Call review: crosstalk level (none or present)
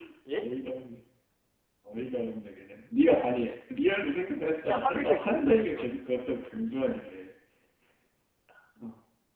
present